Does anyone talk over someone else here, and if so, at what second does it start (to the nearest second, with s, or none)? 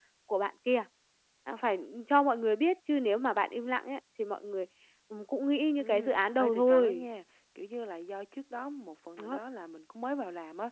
6 s